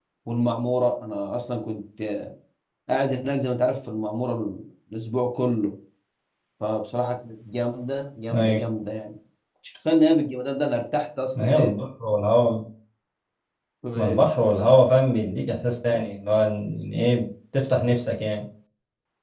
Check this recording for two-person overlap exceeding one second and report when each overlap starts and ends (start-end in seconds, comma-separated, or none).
none